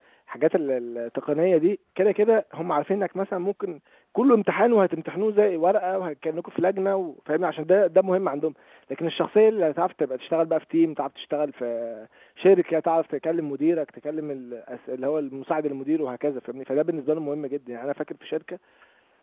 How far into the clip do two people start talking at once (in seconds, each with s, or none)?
none